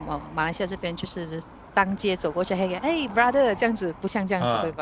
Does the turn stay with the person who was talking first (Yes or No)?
No